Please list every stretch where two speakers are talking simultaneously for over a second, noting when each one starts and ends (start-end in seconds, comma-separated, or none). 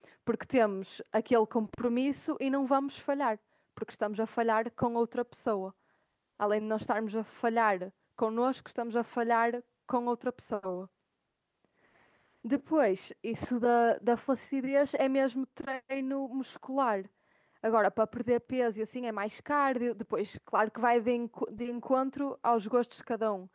none